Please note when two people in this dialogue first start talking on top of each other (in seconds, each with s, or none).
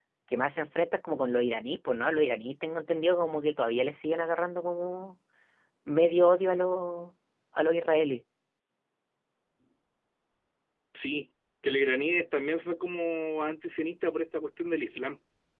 none